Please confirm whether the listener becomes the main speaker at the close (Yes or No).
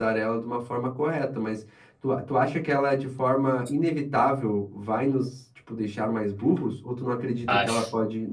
No